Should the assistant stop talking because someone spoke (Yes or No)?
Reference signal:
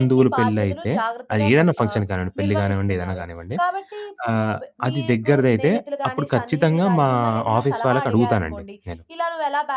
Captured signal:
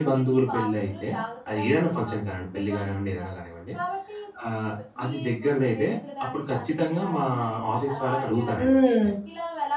Yes